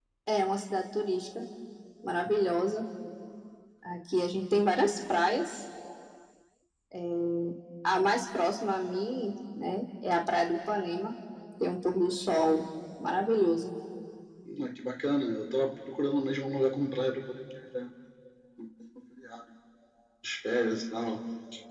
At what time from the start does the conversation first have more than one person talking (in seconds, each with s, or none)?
none